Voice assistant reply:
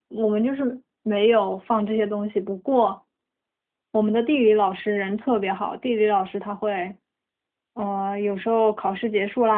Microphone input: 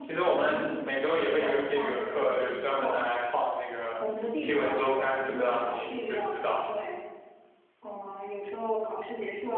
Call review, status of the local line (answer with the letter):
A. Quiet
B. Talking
B